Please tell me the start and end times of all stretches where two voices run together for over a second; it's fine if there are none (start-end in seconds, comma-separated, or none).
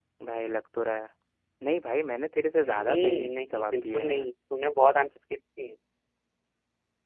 2.6-4.3